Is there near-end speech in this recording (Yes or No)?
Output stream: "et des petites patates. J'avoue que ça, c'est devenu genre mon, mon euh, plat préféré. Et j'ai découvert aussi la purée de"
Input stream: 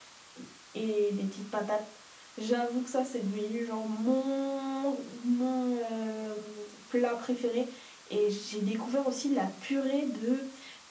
No